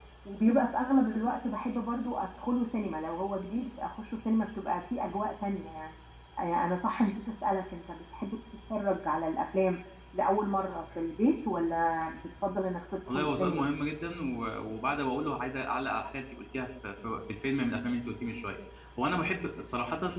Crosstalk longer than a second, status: none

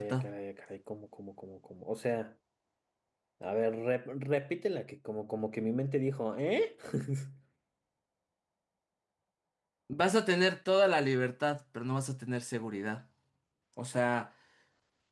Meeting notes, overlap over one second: none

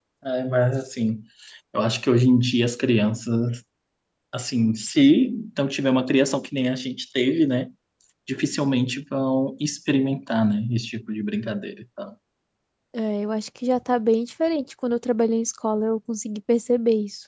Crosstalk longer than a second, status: none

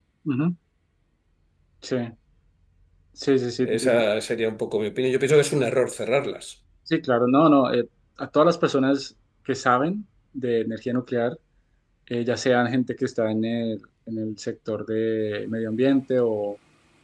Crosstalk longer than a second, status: none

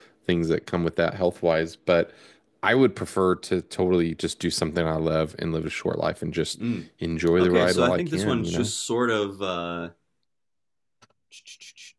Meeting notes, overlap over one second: present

